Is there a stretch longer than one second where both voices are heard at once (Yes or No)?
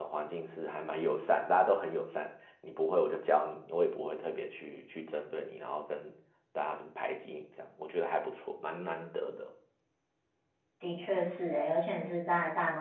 No